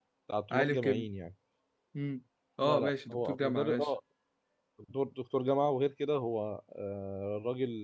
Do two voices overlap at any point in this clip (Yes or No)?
Yes